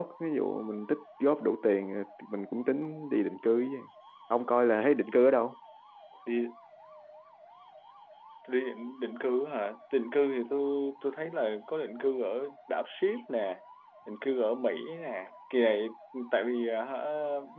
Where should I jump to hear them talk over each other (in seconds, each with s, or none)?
none